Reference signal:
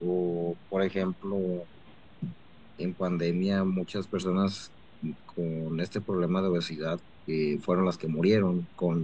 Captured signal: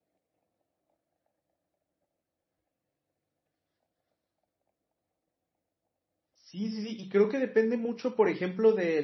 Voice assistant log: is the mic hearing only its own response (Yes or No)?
No